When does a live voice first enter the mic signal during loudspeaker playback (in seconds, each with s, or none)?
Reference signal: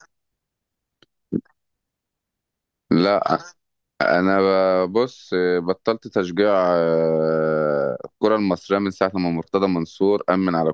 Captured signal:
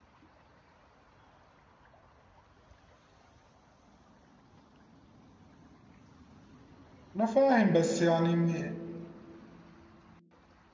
7.2 s